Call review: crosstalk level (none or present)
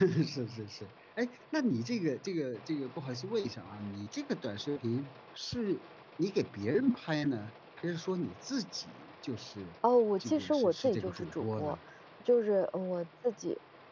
present